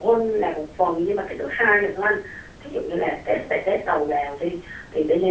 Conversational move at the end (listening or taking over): listening